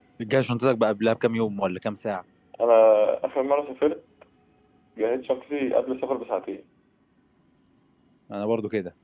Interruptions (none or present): none